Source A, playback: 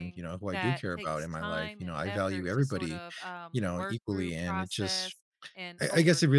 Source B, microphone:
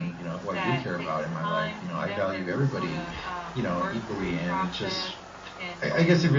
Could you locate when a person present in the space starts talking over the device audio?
none

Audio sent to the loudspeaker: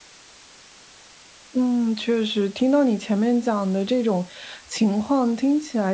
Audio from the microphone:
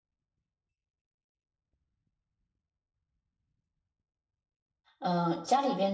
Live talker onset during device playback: 5.0 s

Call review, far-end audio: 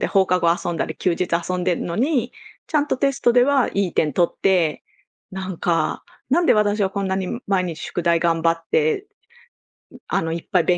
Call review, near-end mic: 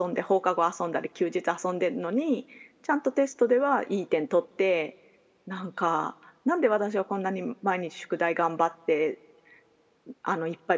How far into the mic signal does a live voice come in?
none

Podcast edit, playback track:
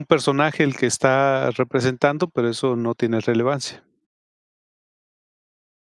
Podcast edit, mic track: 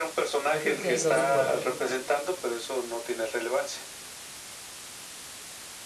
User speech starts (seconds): 0.5 s

